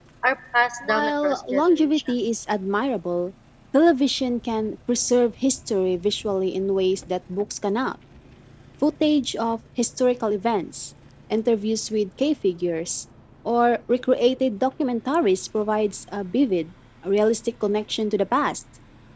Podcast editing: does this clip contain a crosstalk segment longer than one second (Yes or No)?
Yes